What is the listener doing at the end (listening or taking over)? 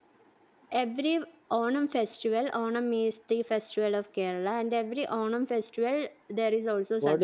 taking over